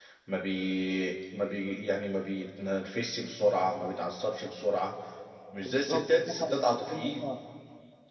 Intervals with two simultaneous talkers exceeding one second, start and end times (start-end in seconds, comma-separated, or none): 5.7-7.3